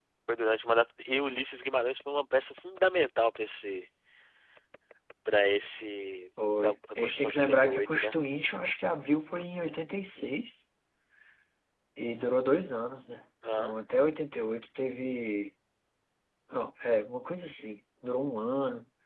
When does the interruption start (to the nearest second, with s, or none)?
7 s